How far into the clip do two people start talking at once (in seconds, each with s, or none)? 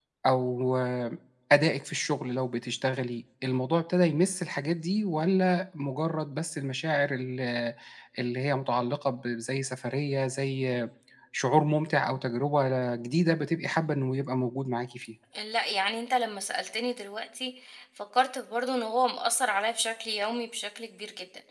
none